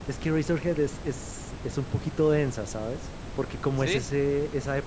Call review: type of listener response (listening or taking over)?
listening